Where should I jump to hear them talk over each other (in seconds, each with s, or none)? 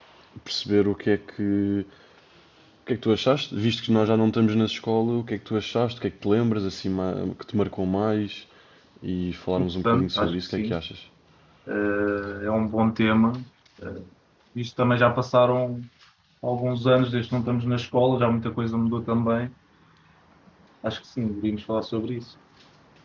9.6 s